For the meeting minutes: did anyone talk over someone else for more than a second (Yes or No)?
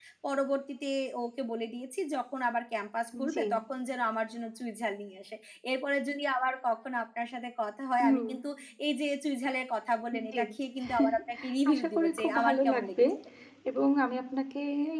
Yes